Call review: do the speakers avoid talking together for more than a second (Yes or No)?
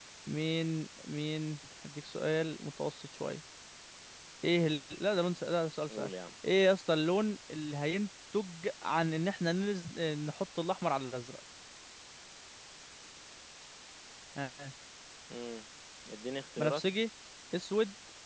Yes